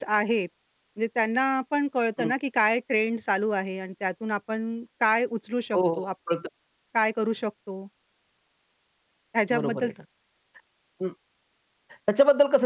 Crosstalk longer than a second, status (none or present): none